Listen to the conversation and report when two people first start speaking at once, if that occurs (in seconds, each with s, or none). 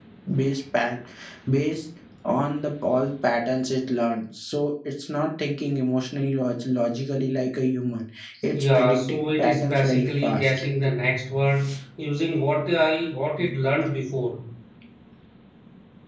8.5 s